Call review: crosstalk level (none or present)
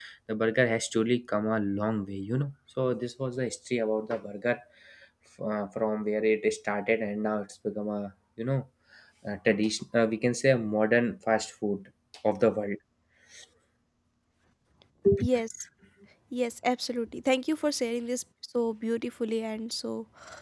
none